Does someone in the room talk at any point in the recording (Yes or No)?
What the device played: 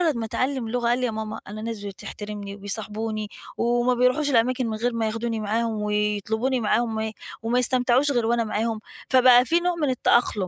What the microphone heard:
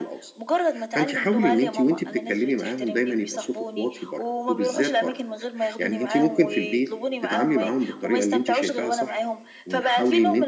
Yes